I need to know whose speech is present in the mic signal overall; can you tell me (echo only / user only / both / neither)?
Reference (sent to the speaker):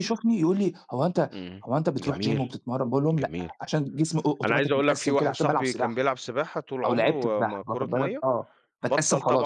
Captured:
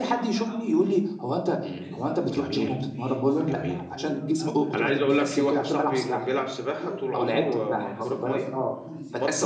both